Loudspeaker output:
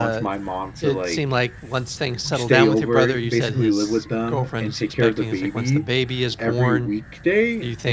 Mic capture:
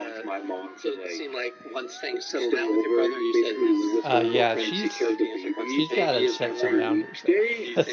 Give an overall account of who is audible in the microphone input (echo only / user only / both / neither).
both